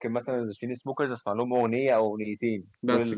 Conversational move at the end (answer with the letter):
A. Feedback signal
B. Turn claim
A